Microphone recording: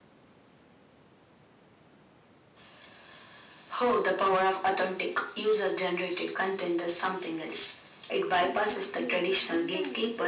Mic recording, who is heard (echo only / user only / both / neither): both